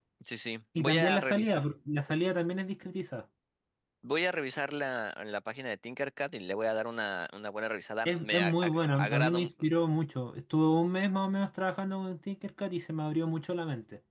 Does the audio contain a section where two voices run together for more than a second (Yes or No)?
Yes